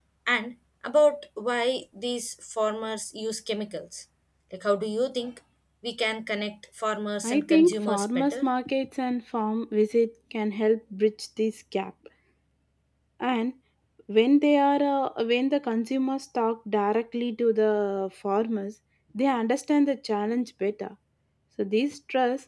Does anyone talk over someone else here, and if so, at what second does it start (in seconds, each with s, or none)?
7.2 s